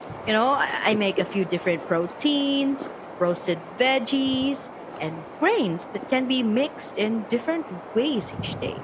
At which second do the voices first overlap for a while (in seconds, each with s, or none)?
none